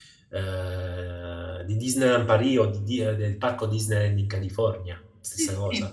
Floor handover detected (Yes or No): Yes